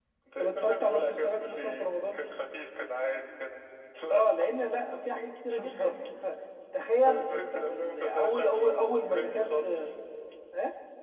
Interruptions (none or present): present